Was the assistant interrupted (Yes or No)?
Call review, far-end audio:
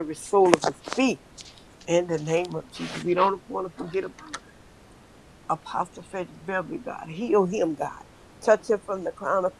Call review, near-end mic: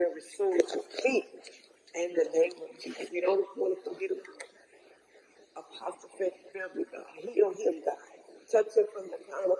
No